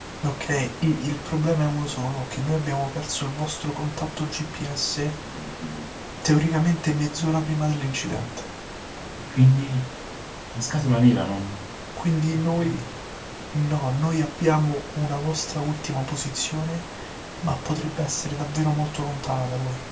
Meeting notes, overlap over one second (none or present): none